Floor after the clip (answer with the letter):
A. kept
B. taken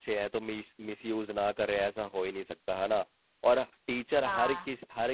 A